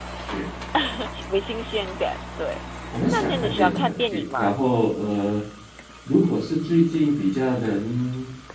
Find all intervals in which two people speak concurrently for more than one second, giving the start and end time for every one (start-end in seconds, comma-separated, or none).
3.1-4.5